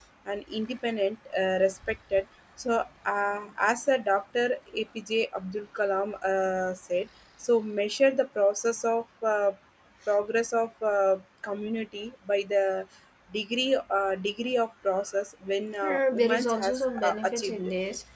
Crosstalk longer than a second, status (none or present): present